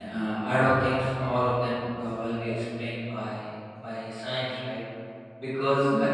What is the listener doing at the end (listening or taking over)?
listening